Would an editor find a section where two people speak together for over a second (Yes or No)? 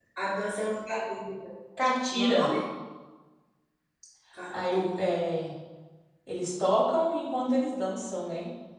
No